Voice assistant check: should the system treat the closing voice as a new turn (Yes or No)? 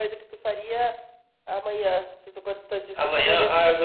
Yes